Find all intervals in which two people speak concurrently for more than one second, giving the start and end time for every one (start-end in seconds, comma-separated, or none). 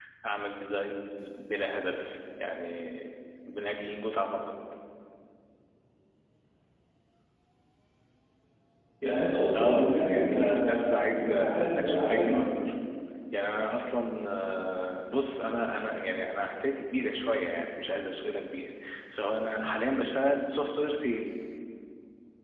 9.6-12.4